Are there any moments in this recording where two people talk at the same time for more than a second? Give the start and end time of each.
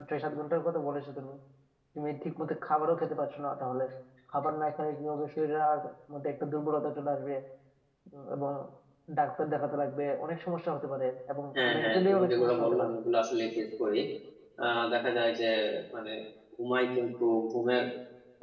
11.6-12.9

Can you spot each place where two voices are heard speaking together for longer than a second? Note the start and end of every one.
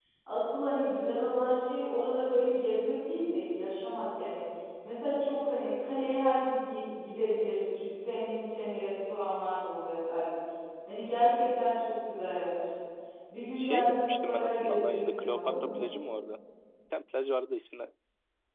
13.6-15.8

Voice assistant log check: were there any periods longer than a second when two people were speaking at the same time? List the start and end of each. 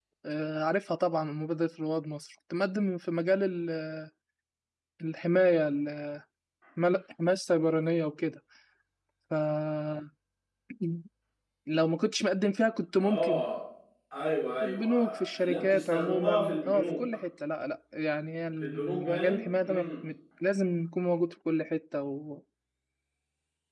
14.6-17.0, 18.6-19.9

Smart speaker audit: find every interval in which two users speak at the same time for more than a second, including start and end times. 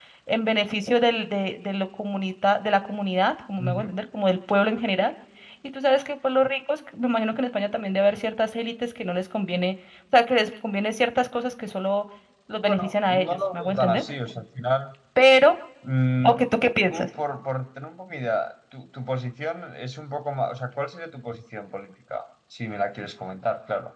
12.6-14.0

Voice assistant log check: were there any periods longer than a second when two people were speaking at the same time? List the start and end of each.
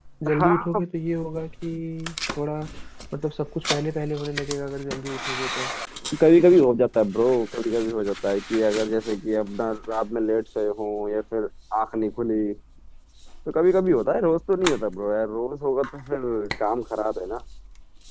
none

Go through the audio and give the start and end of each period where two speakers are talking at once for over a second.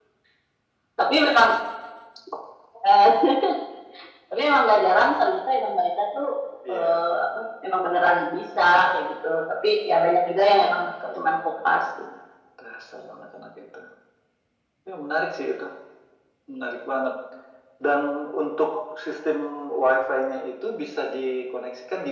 10.1-11.4

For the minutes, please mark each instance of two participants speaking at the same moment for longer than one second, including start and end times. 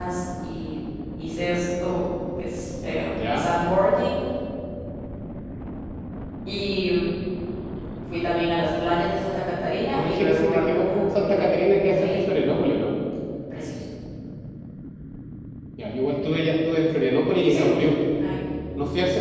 9.9-12.3

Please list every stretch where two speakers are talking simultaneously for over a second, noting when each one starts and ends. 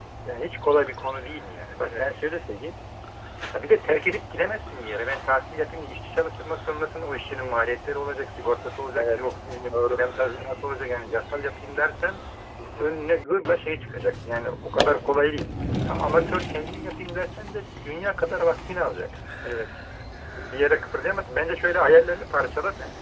none

